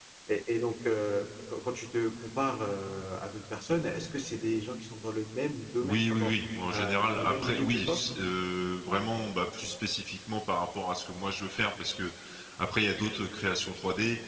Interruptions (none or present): present